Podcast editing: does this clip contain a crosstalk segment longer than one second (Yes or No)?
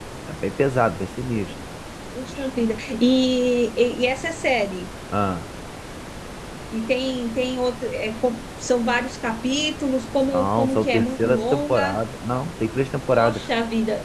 Yes